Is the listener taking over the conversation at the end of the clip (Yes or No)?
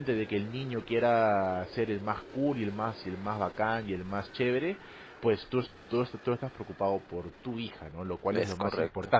No